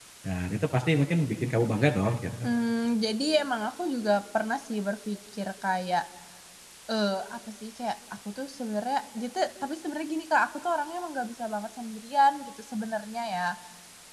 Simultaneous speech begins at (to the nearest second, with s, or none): none